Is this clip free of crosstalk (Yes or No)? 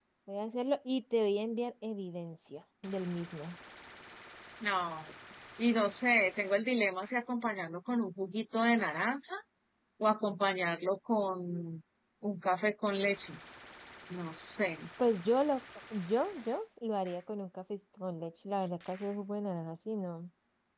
Yes